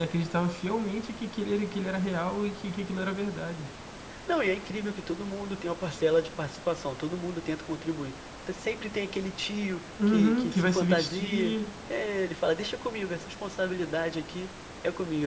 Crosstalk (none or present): present